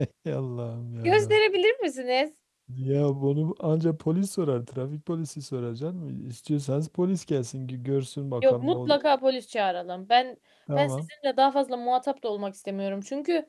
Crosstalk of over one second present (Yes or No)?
No